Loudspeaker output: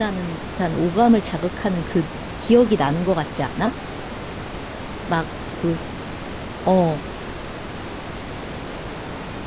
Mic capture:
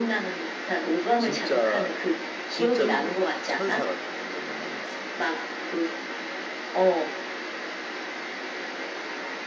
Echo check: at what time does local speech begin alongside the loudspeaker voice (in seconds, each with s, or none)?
1.2 s